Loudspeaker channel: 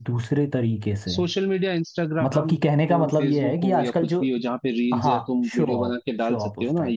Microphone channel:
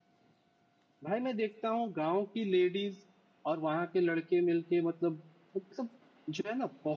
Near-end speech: present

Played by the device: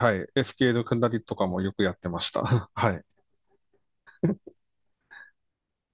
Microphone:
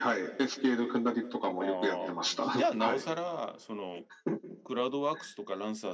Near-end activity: present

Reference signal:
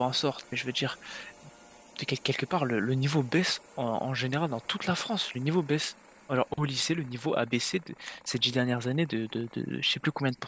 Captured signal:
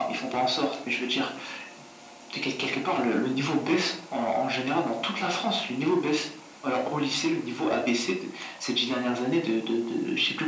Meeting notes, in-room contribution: none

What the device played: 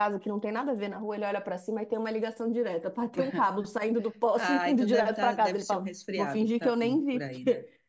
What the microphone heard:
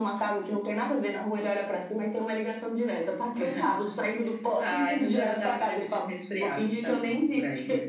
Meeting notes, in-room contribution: none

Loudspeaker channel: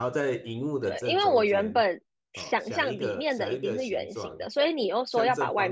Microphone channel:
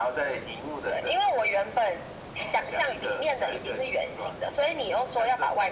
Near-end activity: none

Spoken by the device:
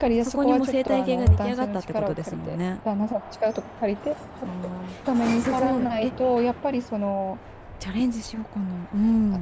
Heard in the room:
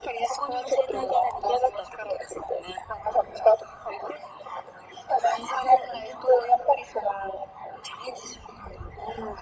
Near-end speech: none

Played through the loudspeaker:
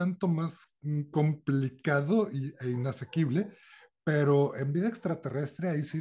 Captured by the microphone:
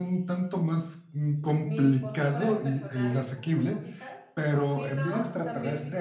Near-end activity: present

